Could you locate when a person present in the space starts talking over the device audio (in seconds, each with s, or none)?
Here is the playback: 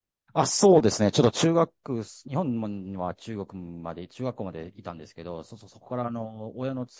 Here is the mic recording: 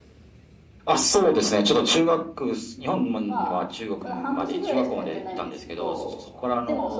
3.2 s